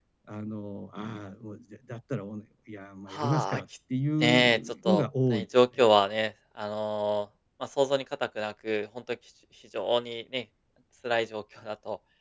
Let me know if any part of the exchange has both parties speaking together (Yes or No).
Yes